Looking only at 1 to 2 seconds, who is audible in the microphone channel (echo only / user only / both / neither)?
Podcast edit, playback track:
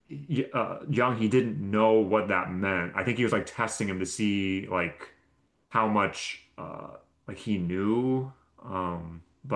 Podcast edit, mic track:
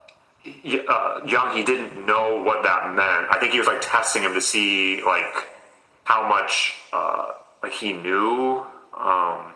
echo only